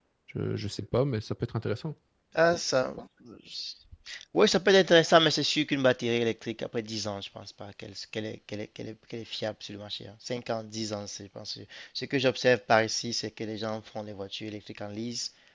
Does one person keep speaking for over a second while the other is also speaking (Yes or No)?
No